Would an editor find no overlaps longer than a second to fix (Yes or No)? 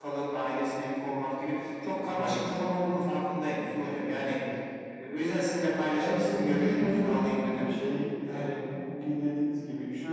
No